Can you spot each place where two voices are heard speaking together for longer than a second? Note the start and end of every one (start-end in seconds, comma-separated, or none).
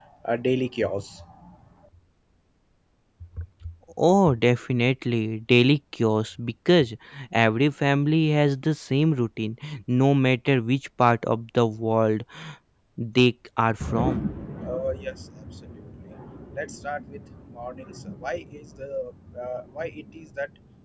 none